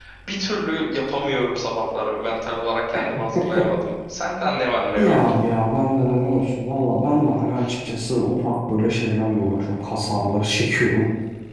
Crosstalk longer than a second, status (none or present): none